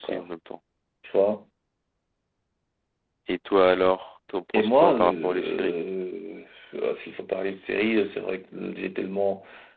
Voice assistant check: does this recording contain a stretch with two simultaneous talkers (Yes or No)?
Yes